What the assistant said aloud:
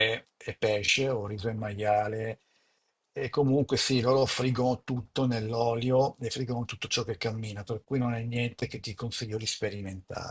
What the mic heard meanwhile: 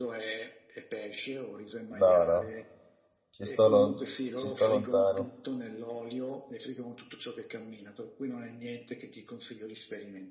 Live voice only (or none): No, no, ci sto, lon- ci sto lontano.